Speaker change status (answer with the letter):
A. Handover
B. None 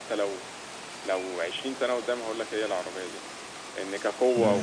B